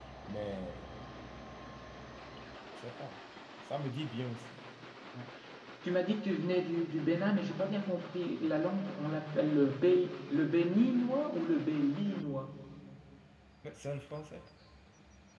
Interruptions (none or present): none